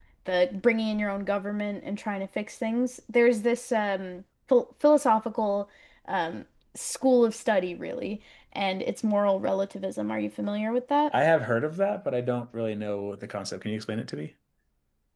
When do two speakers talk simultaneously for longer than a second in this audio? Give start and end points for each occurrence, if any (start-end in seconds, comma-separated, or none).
none